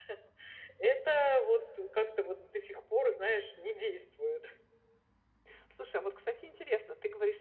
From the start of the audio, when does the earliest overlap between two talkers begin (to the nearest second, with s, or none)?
none